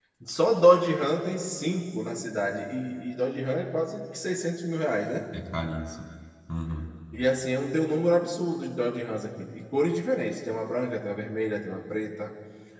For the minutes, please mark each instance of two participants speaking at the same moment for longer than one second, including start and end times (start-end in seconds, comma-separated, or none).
none